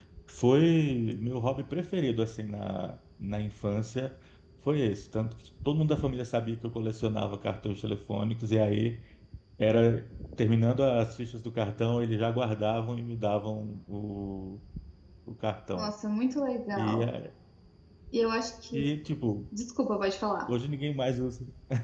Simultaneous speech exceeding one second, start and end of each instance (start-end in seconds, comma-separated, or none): none